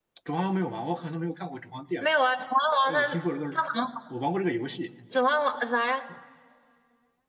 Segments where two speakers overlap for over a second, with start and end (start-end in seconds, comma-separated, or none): none